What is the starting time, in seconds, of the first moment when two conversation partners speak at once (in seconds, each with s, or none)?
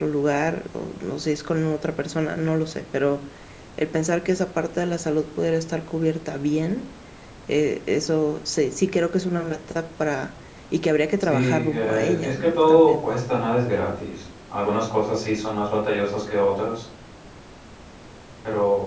11.2 s